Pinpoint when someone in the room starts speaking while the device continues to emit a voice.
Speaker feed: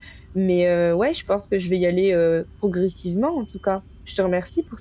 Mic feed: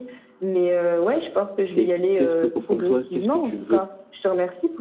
1.6 s

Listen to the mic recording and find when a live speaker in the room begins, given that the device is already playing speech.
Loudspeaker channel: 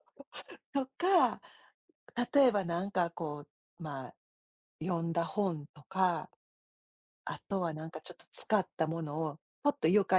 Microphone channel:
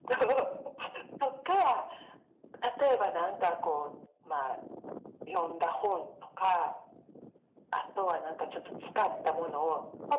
none

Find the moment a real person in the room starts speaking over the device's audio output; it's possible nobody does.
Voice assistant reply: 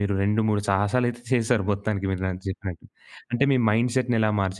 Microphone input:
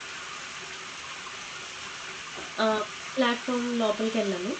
2.6 s

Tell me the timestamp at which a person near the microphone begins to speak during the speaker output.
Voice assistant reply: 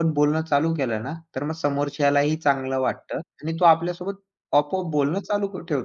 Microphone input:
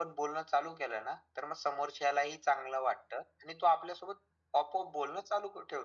none

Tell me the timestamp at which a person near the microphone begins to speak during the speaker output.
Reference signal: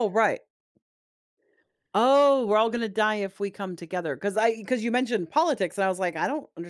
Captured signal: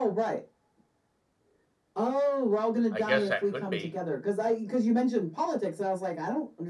2.9 s

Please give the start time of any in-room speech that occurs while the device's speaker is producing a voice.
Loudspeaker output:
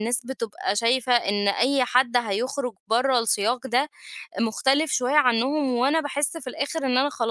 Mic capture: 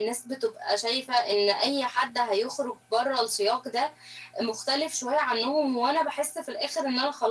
none

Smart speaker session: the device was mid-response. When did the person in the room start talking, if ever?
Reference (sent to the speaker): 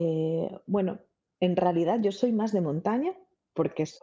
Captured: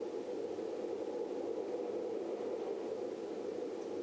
none

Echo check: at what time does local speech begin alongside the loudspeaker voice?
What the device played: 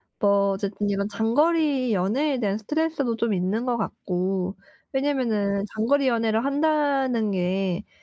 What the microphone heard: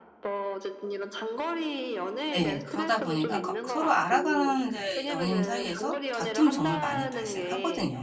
2.3 s

